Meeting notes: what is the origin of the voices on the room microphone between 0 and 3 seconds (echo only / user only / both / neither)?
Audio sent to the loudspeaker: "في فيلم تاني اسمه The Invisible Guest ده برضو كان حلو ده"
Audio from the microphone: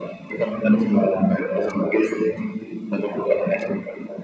echo only